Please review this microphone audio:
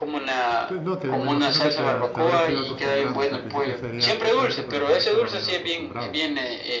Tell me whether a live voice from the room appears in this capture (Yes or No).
Yes